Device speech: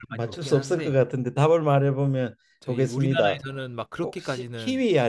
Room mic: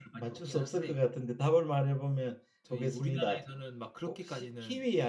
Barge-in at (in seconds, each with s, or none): none